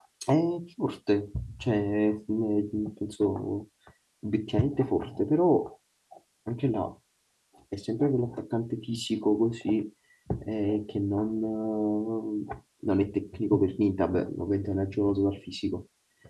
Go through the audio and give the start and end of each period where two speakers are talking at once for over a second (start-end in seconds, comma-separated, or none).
none